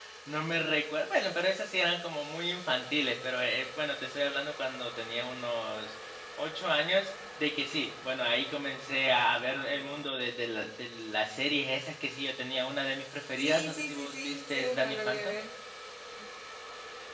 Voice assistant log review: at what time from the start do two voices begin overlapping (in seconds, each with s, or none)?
13.4 s